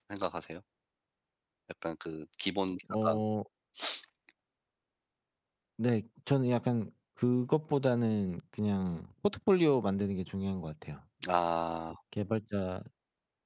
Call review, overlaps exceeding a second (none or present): none